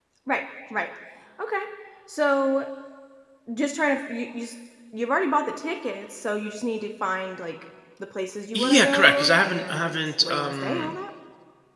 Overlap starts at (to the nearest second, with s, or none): 9 s